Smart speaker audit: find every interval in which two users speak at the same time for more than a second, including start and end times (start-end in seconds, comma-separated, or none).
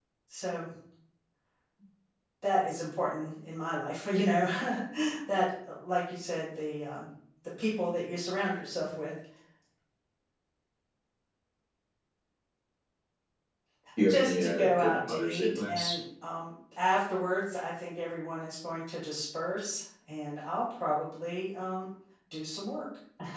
14.1-15.9